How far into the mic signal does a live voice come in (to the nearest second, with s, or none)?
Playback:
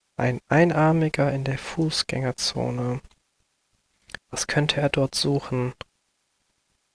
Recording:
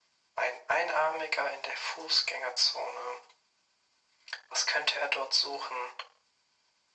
none